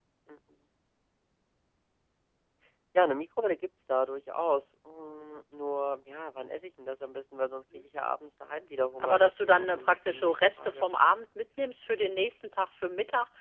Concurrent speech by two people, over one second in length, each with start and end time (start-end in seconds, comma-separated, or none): 9.0-10.9